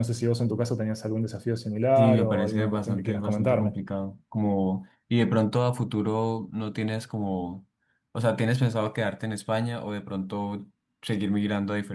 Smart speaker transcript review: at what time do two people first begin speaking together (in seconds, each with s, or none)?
2.0 s